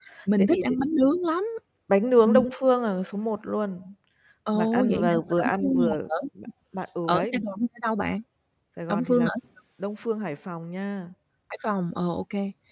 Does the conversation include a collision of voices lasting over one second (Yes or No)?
Yes